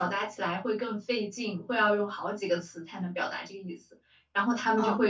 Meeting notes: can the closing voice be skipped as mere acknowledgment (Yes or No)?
Yes